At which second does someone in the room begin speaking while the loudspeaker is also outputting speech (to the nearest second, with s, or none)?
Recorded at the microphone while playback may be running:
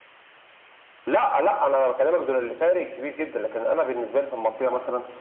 none